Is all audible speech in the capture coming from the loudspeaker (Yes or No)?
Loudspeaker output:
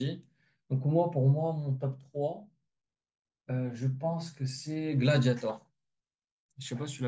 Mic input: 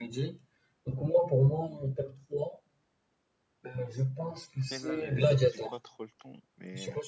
No